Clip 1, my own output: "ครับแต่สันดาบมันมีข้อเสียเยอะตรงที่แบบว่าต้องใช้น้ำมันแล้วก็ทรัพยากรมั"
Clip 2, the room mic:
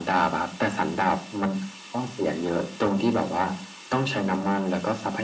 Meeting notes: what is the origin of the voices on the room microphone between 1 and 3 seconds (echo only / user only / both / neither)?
echo only